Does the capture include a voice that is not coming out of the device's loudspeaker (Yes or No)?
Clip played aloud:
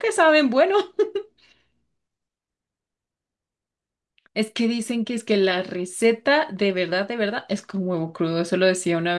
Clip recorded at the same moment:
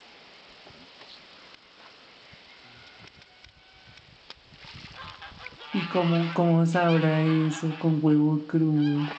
Yes